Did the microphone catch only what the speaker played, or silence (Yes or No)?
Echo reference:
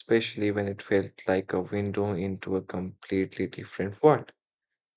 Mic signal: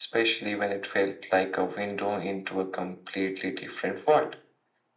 Yes